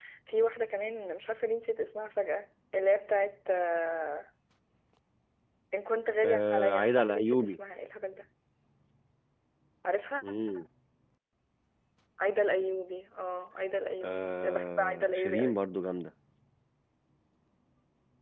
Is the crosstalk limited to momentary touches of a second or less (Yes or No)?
No